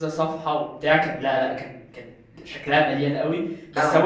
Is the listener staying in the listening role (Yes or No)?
Yes